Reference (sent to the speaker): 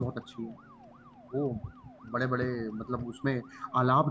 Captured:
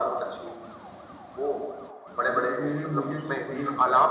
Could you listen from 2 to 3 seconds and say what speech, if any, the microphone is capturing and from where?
both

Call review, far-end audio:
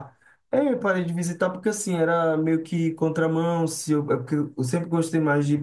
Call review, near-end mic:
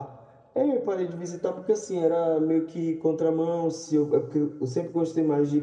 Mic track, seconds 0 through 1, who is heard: echo only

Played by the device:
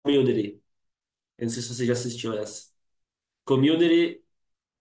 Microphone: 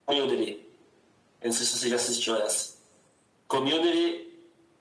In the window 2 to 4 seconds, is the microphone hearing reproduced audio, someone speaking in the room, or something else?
echo only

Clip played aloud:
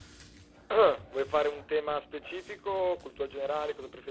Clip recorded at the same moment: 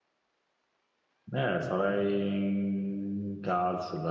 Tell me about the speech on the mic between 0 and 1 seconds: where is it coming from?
neither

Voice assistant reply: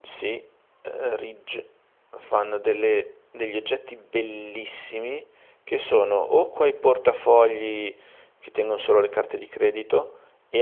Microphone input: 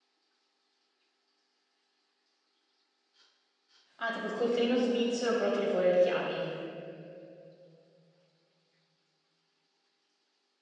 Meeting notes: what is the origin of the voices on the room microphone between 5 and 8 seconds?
user only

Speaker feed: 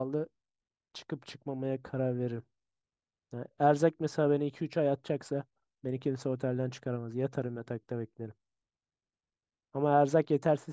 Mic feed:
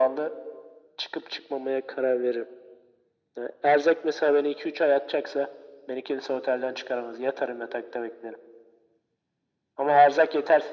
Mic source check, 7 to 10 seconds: echo only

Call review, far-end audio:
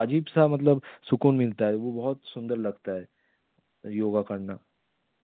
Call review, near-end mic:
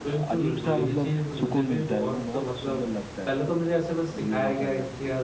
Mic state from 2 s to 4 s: both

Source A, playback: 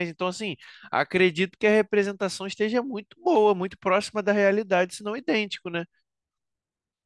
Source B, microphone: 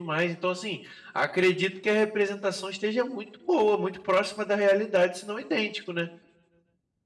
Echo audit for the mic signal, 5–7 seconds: echo only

